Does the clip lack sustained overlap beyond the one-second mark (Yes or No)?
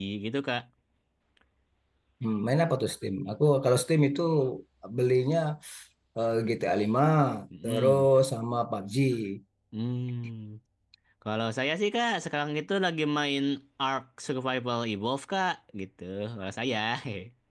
Yes